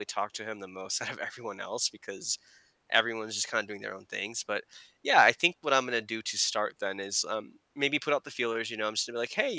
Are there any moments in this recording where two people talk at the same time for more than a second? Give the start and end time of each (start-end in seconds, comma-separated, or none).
none